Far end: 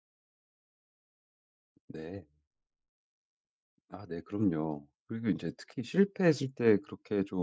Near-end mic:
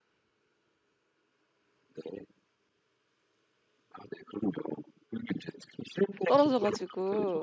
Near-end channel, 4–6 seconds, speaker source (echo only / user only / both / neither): echo only